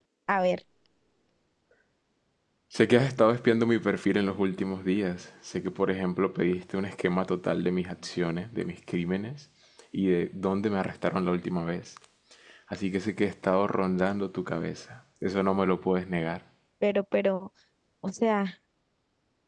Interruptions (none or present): none